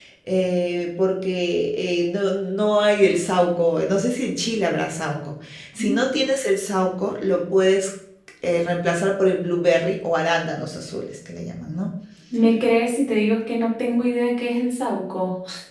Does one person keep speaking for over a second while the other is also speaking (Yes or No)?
No